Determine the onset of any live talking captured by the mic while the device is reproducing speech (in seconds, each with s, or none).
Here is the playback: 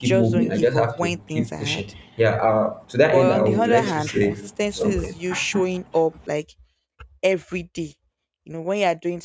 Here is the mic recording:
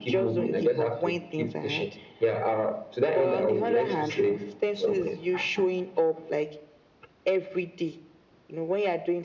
none